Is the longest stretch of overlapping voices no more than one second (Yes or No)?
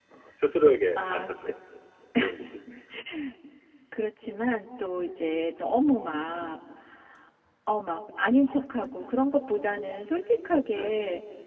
Yes